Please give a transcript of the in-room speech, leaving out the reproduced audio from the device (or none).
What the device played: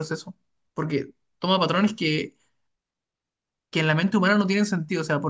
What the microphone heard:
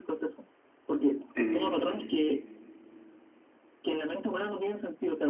Eh,